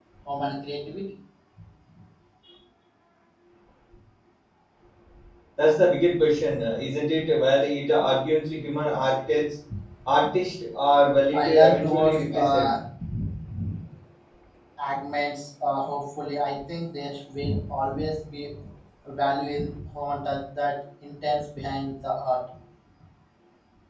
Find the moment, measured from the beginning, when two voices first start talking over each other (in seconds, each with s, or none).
11.3 s